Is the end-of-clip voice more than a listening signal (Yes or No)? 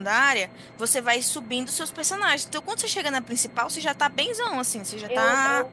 Yes